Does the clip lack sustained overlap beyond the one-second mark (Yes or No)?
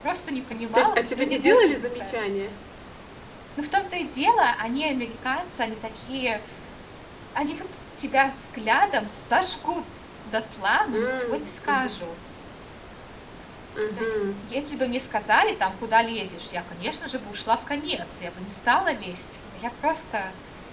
No